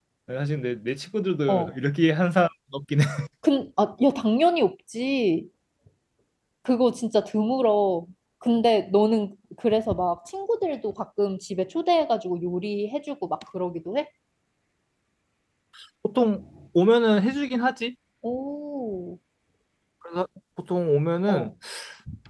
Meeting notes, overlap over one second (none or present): none